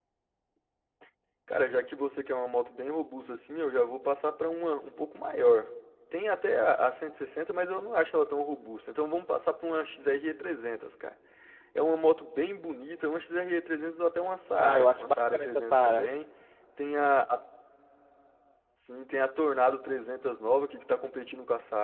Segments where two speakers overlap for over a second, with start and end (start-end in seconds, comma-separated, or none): 14.6-16.1